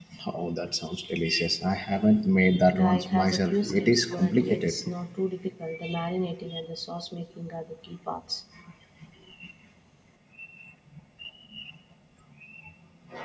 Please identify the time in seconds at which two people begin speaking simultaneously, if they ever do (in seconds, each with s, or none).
2.7 s